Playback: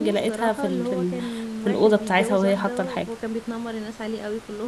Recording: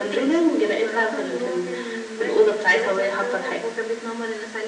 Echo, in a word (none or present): present